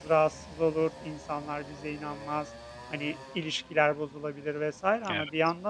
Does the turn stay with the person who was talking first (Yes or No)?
Yes